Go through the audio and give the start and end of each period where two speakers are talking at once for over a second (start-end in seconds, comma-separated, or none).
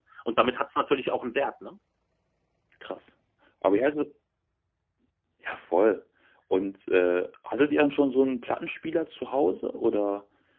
none